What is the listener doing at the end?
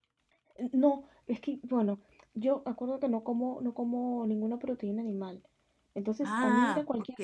listening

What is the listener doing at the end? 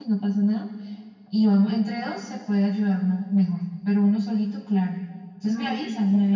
taking over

